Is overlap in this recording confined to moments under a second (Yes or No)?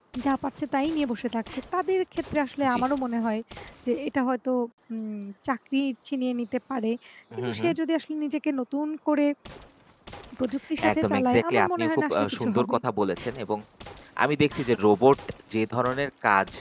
No